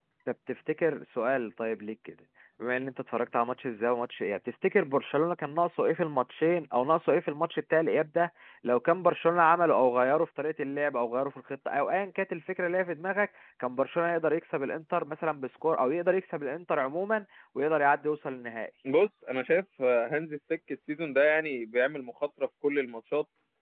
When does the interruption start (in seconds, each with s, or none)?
none